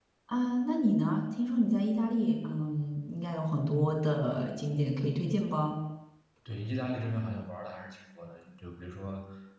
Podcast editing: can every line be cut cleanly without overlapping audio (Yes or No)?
Yes